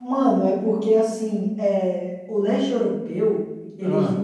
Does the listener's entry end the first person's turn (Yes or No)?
No